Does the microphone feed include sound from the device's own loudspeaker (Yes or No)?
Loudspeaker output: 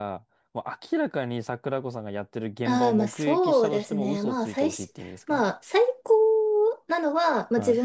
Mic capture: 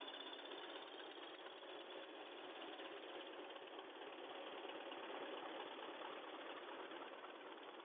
No